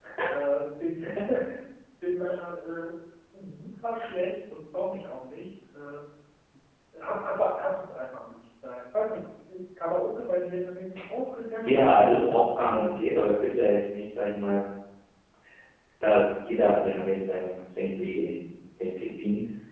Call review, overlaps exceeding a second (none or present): present